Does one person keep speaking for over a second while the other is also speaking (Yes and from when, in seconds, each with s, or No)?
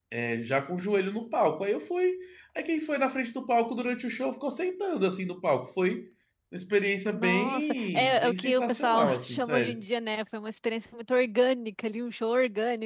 Yes, from 7.1 s